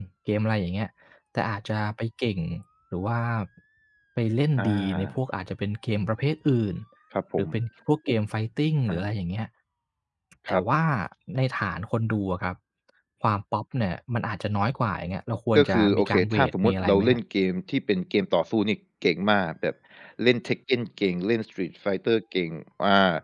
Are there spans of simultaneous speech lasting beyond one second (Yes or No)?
Yes